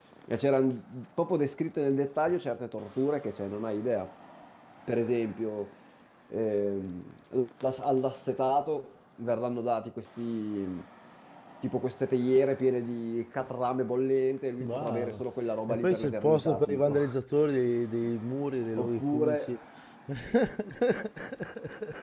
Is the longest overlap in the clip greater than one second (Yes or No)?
Yes